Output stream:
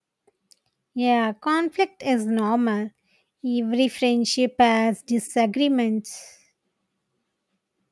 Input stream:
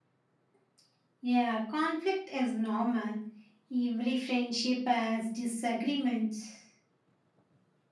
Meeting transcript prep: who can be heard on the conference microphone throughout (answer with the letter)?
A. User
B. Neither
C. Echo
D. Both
C